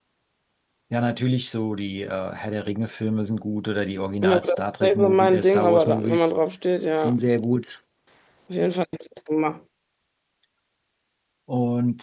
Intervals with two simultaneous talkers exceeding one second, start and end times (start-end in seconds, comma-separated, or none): 4.2-6.3